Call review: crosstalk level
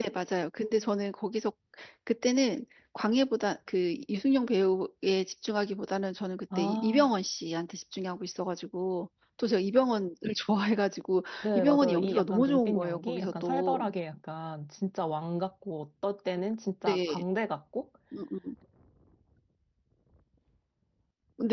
present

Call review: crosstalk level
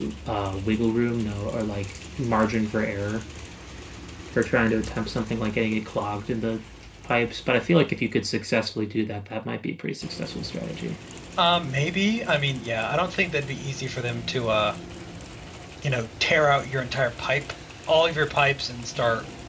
none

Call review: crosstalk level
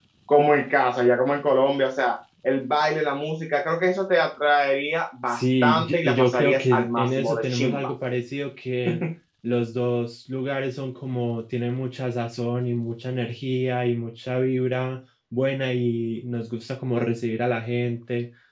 present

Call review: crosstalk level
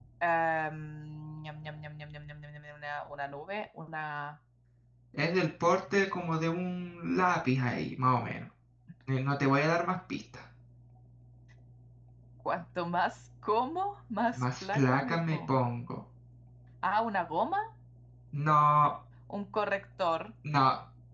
present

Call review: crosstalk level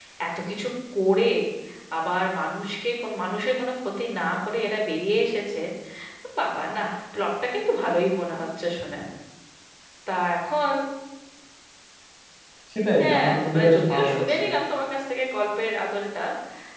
present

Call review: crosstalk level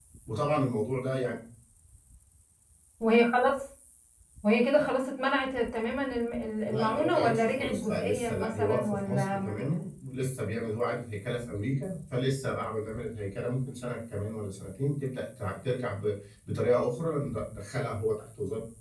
present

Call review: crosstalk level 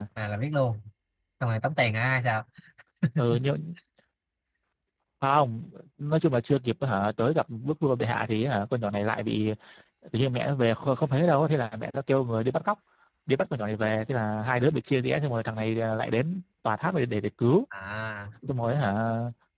none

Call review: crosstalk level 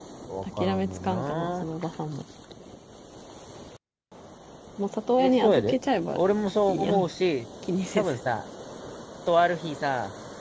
present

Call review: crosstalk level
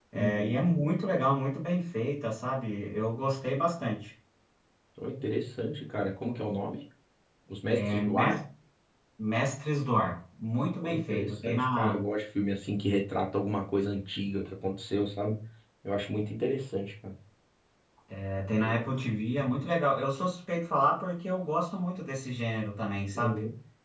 present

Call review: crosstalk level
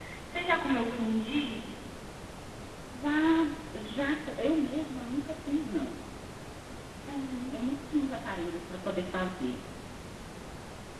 none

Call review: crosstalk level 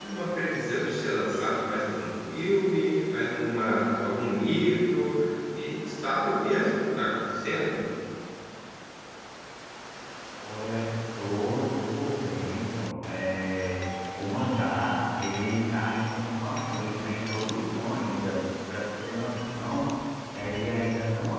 none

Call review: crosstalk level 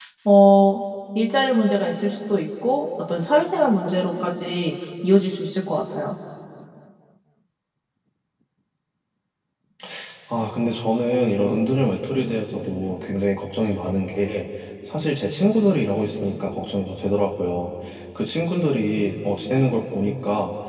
none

